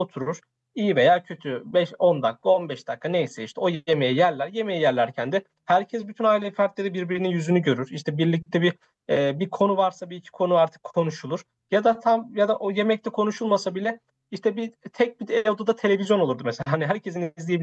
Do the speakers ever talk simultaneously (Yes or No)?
No